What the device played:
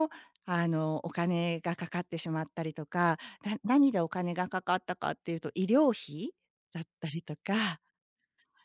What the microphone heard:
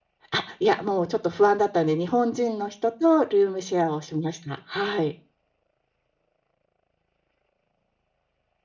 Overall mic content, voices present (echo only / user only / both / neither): user only